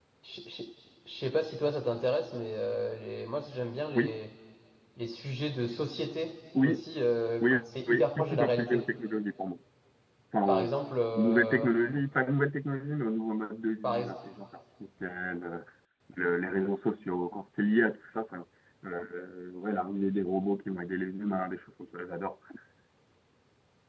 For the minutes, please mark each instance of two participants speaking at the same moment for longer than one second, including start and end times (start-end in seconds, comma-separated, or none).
7.4-8.8